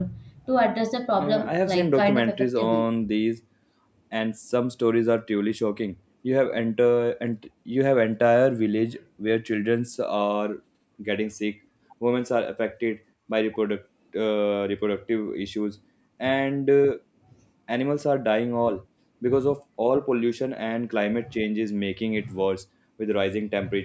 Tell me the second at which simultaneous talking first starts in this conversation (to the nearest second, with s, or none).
1 s